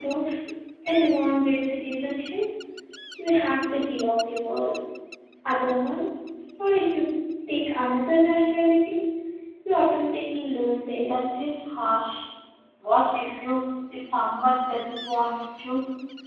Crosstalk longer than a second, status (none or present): none